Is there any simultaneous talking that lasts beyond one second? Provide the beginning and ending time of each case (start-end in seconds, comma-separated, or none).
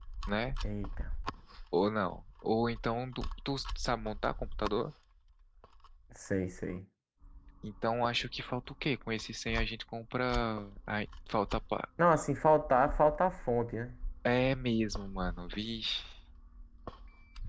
none